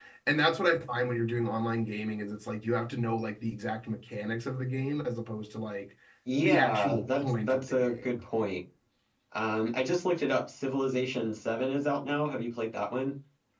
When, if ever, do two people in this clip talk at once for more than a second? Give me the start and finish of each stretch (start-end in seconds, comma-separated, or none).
6.4-7.9